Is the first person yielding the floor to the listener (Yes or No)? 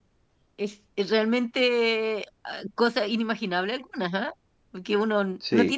No